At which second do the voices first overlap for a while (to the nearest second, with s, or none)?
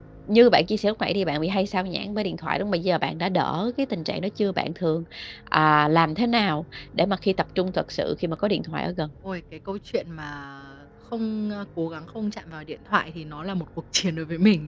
none